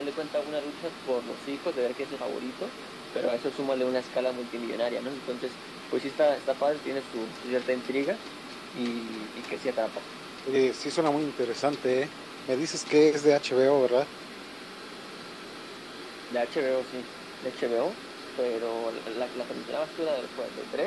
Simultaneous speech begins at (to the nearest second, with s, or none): none